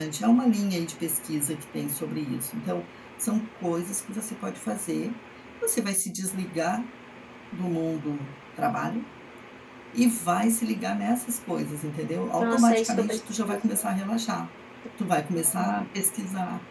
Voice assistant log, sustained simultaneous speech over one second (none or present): present